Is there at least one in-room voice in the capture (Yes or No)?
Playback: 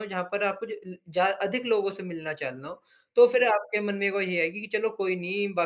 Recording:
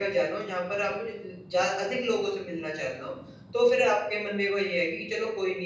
No